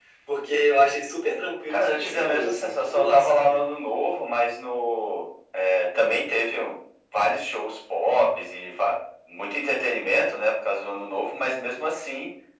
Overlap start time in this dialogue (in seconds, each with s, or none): 1.7 s